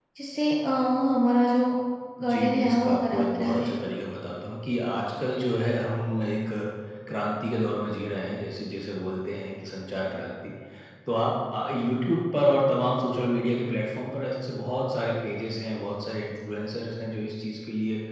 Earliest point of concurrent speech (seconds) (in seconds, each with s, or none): 2.2 s